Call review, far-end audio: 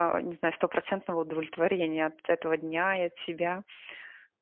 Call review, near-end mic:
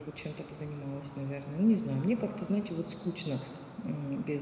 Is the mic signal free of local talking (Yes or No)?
No